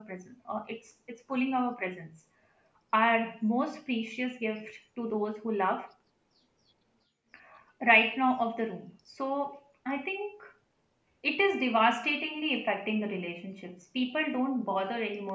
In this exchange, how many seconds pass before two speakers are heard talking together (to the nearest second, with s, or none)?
none